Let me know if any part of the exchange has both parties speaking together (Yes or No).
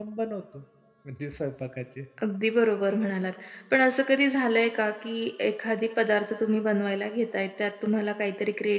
No